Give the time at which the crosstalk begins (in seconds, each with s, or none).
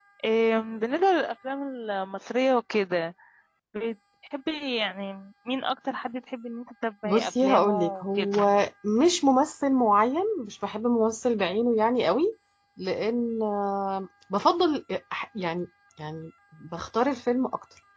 7.0 s